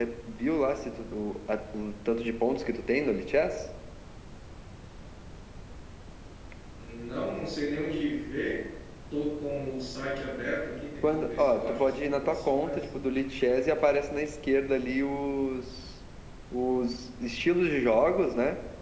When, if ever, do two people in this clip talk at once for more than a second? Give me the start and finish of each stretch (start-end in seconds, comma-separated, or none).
11.0-12.8